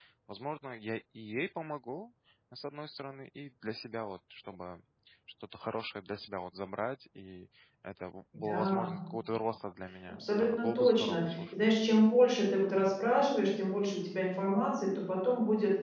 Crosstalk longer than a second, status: present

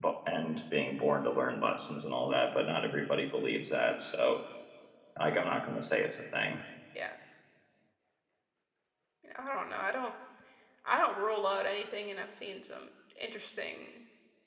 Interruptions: none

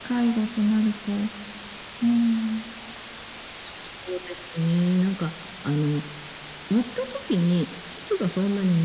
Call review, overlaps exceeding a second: none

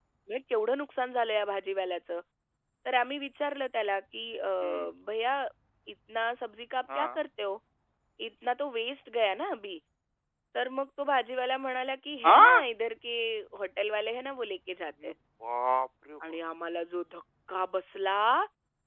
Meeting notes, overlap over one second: none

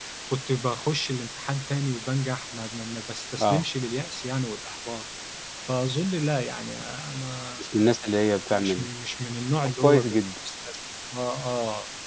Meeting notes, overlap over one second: none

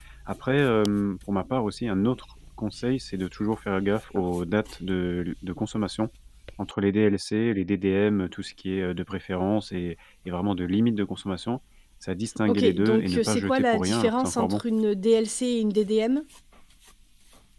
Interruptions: present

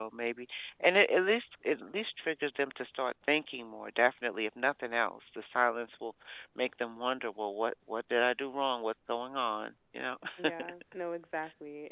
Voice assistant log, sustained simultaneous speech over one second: none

